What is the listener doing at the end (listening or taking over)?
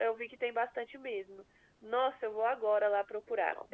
listening